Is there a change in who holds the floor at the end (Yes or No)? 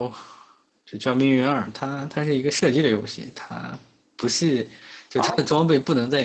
No